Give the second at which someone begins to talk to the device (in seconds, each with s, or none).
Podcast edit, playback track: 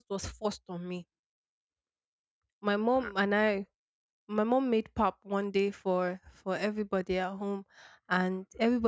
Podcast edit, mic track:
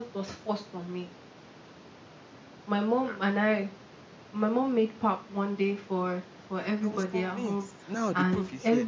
6.8 s